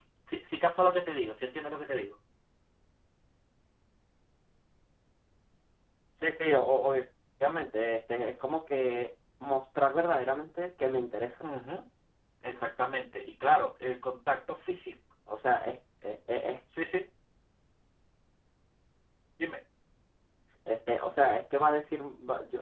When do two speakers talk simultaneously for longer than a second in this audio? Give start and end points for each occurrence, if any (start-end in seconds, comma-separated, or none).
none